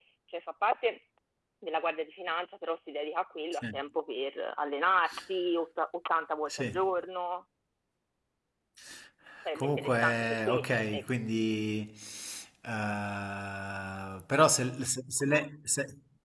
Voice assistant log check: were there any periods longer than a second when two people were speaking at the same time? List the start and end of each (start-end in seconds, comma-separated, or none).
9.6-11.0